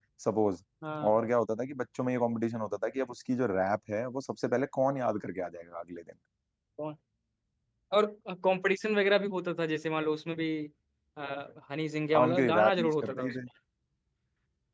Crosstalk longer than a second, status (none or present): present